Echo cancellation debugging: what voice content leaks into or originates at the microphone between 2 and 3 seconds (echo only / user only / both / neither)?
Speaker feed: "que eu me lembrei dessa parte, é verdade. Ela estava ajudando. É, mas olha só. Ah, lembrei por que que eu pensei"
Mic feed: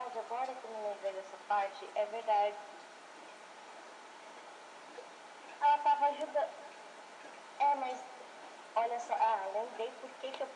echo only